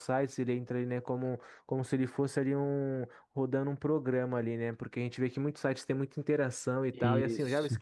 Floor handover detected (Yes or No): No